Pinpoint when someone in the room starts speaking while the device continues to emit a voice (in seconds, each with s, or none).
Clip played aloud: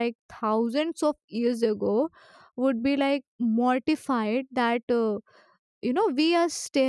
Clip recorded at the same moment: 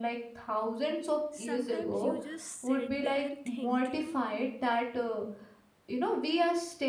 1.3 s